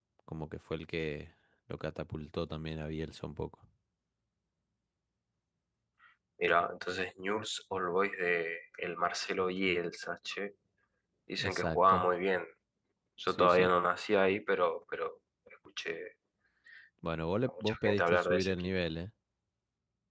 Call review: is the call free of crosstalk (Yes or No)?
No